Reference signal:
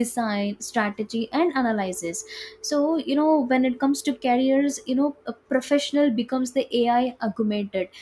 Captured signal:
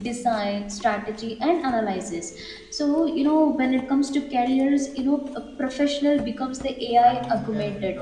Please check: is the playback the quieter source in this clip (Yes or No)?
No